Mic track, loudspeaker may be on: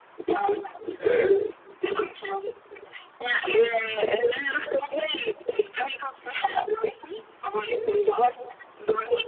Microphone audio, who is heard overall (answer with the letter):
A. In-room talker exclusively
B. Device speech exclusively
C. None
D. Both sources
D